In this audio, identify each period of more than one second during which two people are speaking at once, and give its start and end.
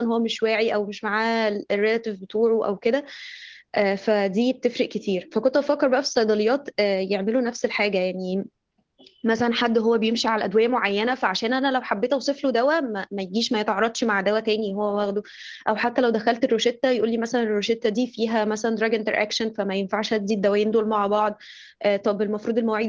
none

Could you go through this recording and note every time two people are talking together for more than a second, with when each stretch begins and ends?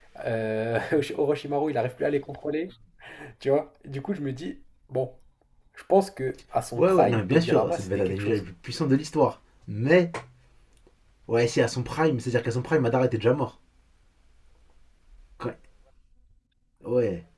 6.8-8.4

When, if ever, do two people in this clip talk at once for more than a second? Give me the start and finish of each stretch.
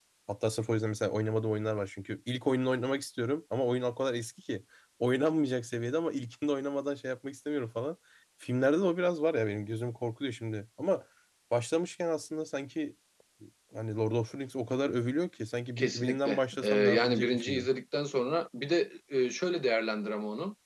15.8-17.7

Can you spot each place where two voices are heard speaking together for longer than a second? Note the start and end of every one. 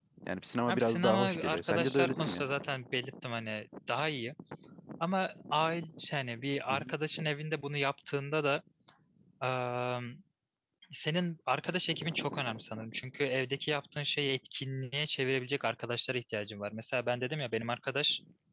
0.7-2.5

